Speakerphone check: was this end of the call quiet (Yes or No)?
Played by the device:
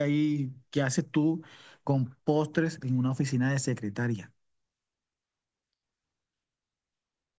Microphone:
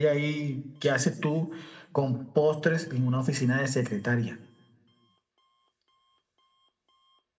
Yes